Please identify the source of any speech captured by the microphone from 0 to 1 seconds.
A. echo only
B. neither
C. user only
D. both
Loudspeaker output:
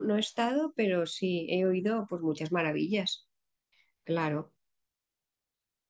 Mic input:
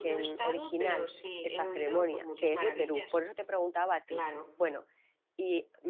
D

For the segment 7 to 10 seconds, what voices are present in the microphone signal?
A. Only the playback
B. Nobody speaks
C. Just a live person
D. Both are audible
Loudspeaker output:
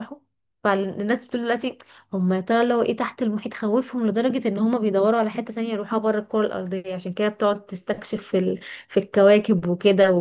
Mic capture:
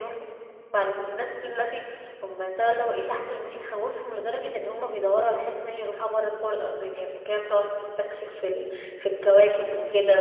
A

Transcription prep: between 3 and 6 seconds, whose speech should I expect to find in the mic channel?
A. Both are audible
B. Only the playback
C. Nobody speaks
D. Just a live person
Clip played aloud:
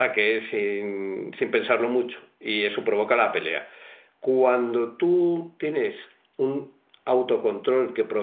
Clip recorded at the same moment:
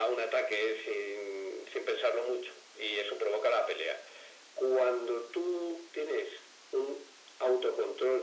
B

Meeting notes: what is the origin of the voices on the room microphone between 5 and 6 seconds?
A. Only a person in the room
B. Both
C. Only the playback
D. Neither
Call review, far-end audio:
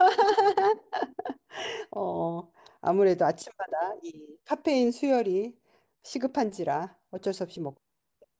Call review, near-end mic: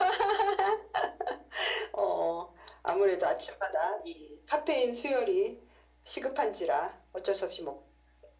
C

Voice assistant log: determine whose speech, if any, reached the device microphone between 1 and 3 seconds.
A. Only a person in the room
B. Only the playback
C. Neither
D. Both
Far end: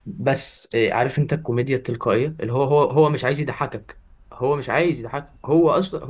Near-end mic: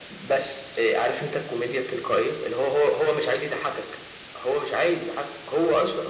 B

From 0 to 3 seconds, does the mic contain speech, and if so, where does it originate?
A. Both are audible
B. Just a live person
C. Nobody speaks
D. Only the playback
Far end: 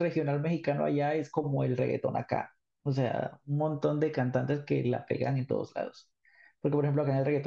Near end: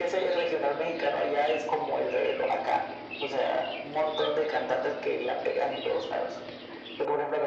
D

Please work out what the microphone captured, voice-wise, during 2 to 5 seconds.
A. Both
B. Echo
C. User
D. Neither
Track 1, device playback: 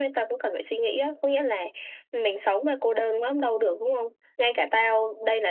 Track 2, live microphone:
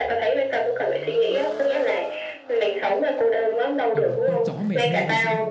A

